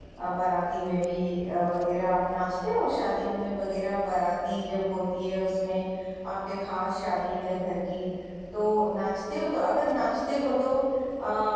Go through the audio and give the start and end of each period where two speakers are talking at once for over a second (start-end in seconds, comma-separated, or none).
none